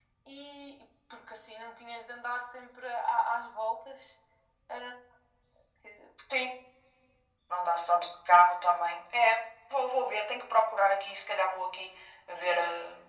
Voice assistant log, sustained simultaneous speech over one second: none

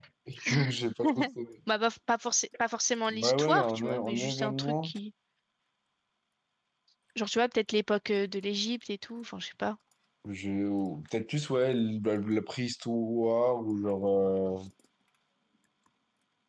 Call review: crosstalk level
present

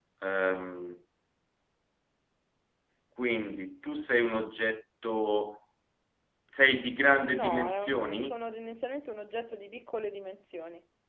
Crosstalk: present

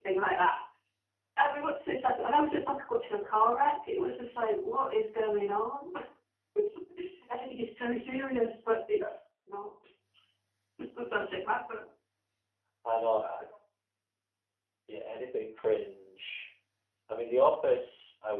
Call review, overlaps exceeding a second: none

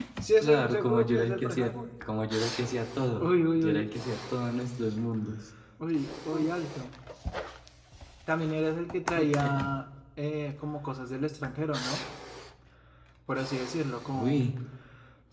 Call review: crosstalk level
present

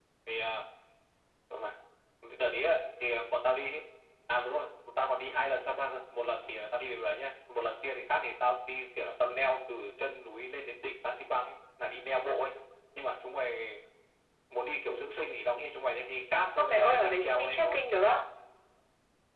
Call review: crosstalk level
present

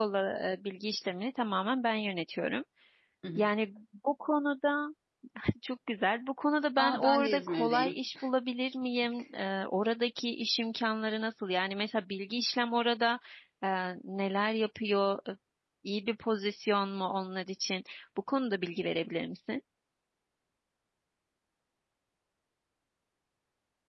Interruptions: present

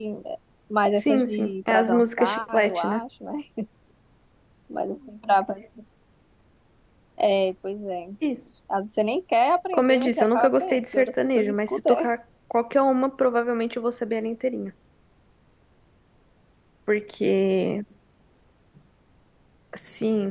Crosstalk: present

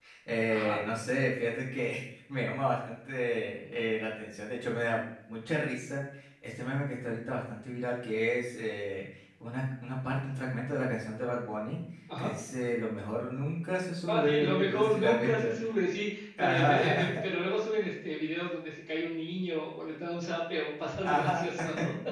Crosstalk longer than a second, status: present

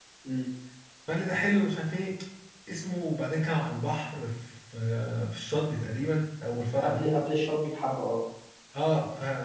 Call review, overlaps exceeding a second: none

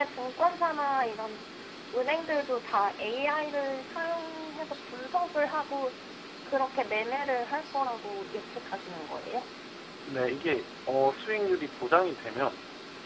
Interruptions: none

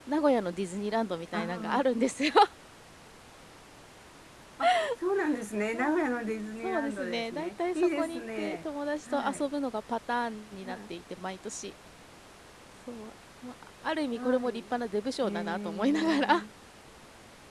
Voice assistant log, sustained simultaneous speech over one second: present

